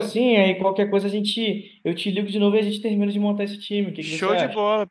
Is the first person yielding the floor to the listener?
Yes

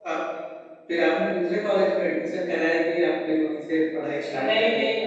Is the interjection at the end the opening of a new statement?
Yes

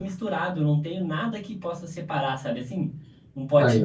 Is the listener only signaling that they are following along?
Yes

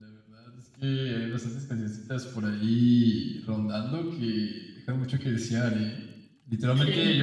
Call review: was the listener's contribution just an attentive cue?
Yes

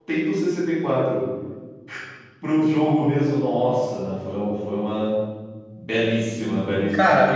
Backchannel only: No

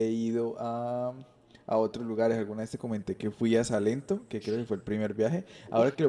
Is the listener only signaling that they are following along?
Yes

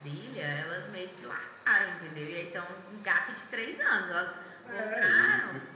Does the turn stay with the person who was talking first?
No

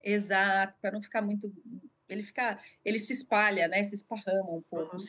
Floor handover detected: Yes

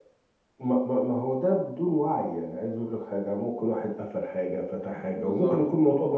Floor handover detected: No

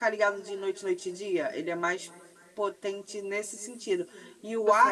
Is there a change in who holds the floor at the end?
No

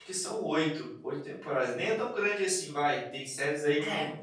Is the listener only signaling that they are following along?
Yes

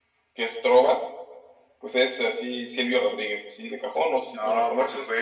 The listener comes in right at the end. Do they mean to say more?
Yes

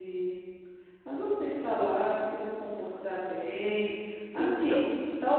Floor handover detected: No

